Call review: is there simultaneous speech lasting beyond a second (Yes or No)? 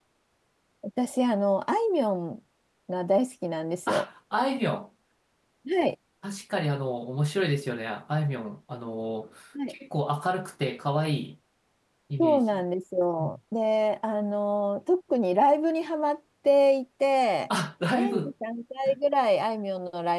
No